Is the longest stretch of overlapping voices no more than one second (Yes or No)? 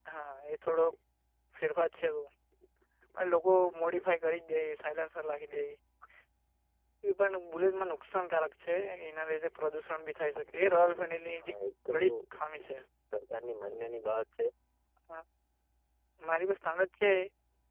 Yes